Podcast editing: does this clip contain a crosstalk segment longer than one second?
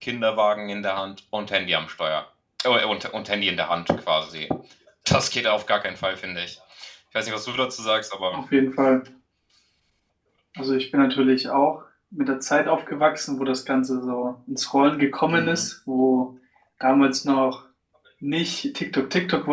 No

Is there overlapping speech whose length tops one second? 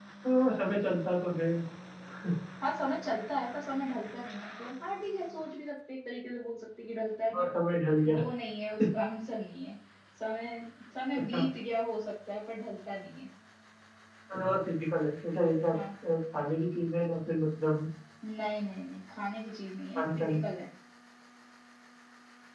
No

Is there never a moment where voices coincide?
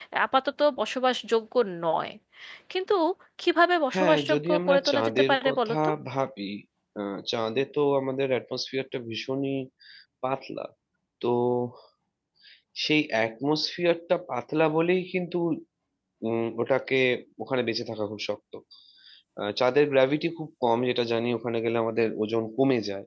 No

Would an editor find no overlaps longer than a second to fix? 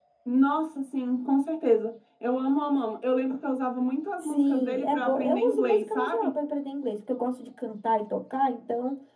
No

